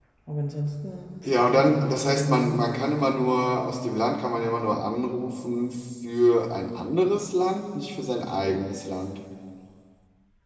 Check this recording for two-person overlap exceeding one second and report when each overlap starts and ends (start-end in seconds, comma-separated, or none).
1.2-2.6